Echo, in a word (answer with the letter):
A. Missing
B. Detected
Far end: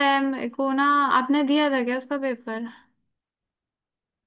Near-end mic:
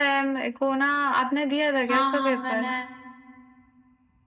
B